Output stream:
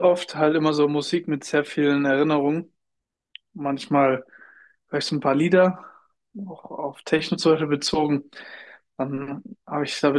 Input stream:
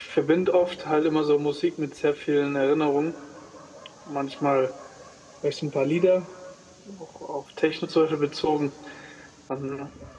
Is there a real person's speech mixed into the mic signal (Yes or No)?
No